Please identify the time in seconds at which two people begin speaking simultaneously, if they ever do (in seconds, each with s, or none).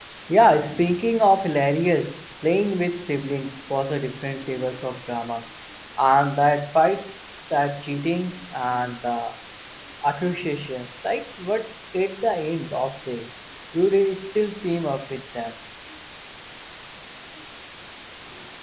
none